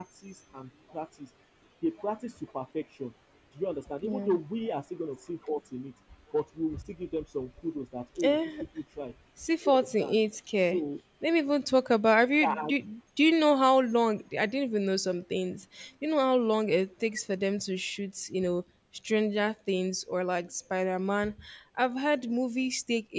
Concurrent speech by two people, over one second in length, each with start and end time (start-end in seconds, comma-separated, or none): none